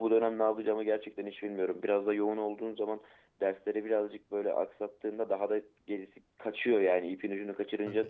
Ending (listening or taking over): taking over